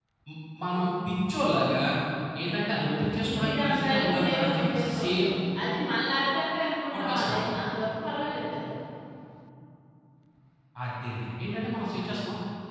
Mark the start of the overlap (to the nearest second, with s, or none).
3 s